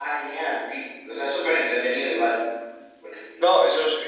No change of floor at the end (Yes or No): No